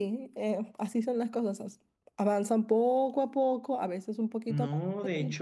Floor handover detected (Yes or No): Yes